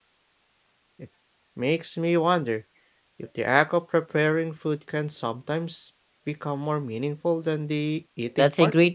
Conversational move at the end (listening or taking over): taking over